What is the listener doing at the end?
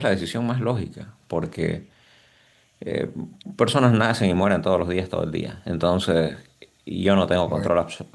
listening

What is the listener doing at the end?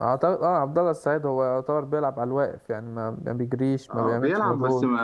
taking over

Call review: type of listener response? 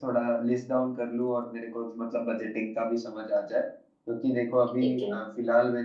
listening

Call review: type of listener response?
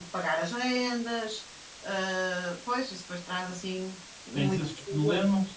taking over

